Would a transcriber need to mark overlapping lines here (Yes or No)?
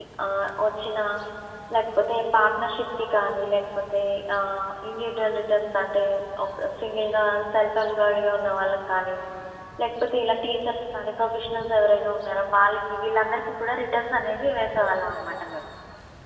No